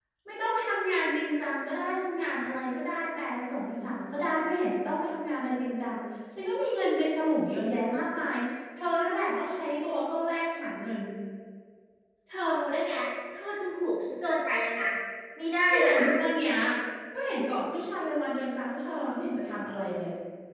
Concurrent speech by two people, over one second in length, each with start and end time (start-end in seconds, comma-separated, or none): none